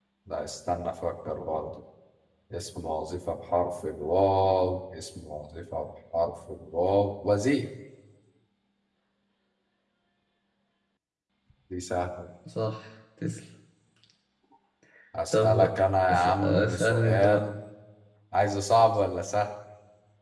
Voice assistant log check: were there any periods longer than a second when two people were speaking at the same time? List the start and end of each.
16.1-17.4

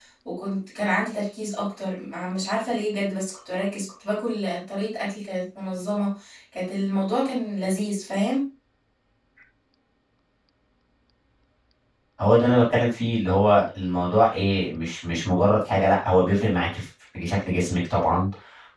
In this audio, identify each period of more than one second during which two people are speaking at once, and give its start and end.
none

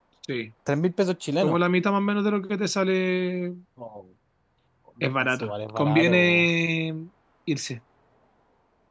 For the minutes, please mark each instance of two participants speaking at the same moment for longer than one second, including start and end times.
5.2-6.5

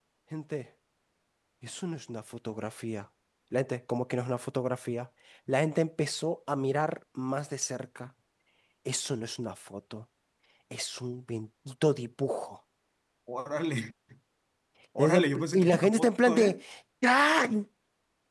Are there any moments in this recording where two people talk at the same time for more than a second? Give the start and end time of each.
15.0-16.6

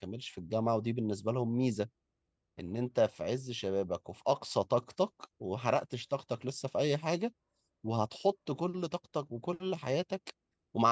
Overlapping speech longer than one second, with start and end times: none

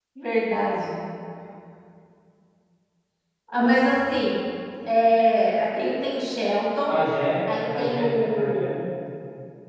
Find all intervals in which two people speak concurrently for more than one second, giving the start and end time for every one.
7.6-8.8

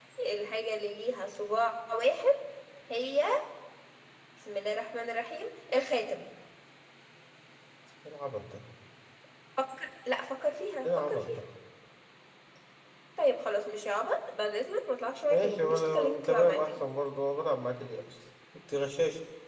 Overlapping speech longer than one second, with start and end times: 15.3-16.7

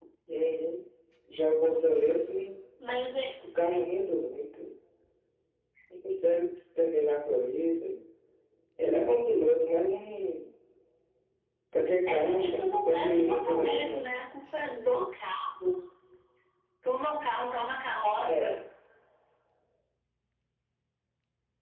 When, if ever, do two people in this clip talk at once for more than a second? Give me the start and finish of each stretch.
12.1-14.2

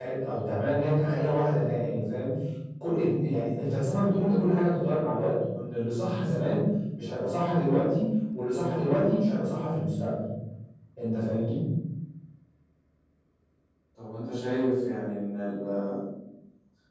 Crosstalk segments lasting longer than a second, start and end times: none

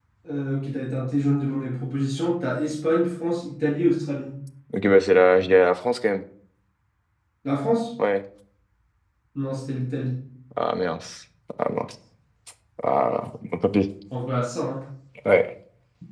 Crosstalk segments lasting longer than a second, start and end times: none

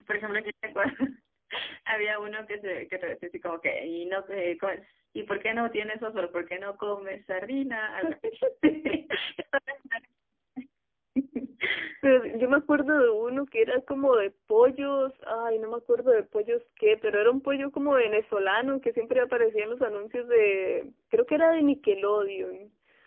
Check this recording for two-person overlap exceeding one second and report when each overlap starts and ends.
none

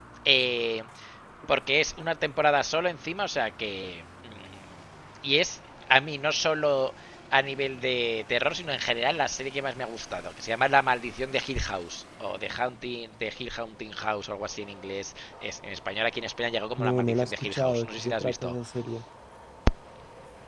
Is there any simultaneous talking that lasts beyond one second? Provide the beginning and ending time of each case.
16.8-18.5

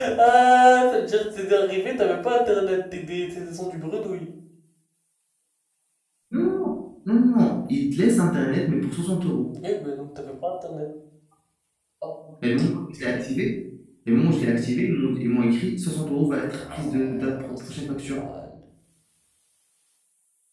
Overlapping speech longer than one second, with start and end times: 16.6-18.2

